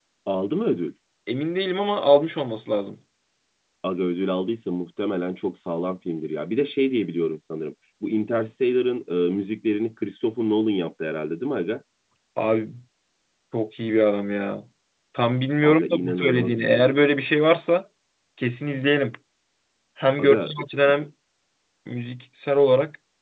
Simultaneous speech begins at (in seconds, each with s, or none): 15.6 s